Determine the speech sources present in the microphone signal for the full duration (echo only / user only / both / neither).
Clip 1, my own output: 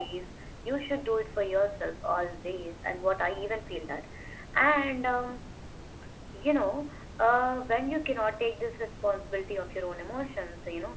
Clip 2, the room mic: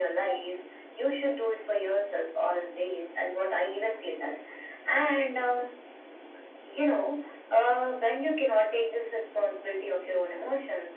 echo only